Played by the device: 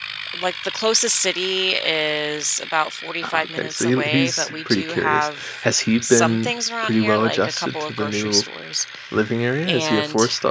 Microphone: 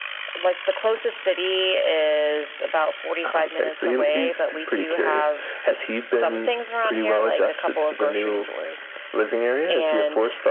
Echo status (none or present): present